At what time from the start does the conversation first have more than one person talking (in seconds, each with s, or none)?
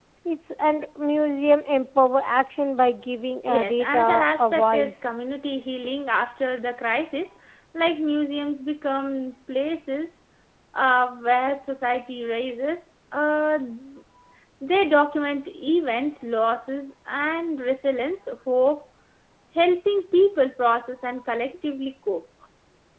3.5 s